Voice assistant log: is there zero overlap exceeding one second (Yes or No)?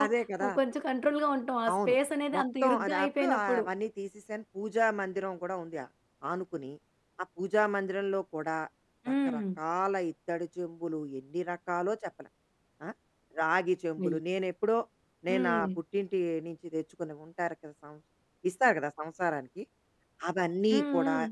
No